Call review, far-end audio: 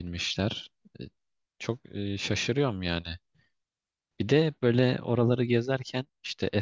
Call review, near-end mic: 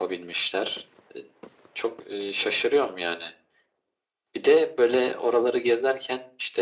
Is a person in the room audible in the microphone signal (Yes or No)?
No